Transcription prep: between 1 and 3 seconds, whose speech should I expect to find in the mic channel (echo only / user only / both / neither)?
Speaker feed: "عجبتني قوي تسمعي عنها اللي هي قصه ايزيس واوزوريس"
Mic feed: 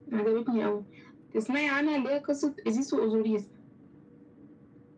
echo only